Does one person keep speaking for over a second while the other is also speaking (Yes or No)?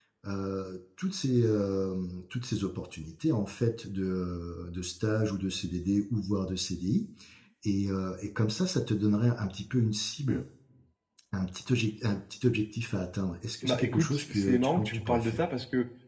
Yes